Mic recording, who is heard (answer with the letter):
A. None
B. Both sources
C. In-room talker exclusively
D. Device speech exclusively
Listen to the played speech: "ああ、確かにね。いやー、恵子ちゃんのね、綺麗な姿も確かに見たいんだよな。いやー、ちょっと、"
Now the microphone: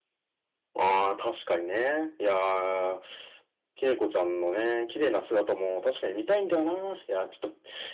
D